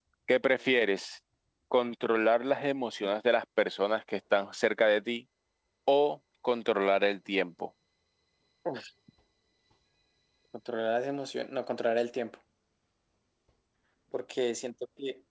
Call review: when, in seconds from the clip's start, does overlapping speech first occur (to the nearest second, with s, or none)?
none